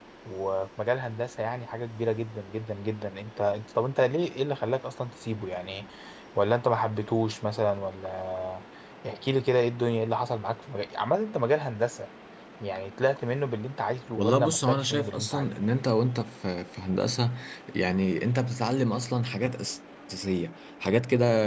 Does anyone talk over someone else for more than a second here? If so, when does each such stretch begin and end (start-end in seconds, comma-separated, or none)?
14.2-15.5